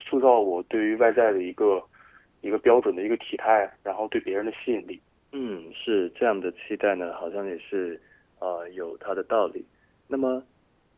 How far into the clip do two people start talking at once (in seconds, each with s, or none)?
none